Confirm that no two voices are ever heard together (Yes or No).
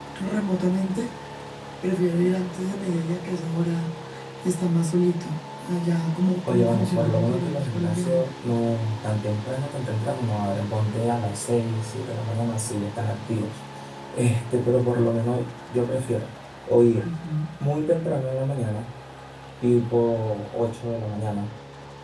No